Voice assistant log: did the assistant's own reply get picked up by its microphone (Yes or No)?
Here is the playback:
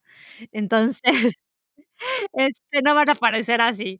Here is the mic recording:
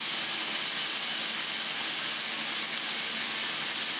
No